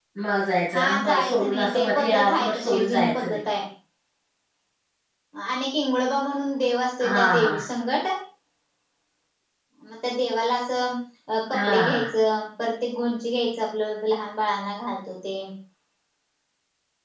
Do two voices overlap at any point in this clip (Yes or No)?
Yes